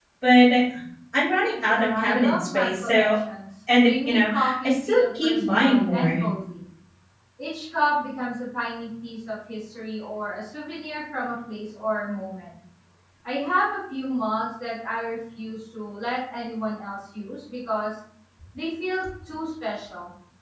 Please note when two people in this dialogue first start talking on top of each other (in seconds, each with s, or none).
1.7 s